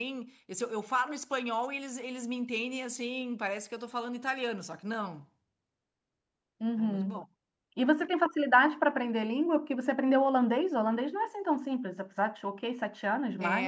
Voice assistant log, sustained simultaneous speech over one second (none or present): none